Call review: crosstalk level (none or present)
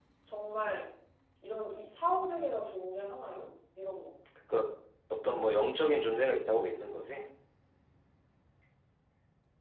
none